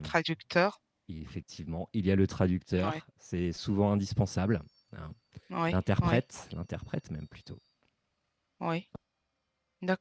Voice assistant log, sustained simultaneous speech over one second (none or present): none